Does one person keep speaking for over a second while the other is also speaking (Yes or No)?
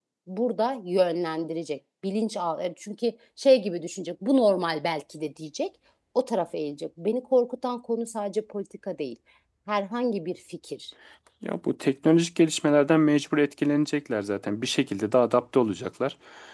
No